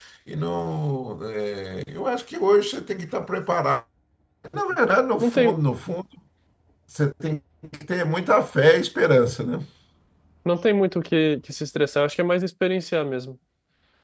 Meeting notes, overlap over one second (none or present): none